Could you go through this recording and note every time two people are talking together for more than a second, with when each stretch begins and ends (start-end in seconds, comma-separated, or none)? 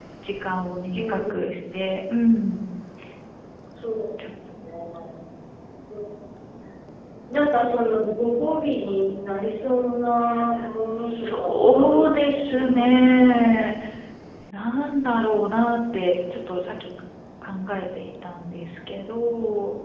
11.0-13.5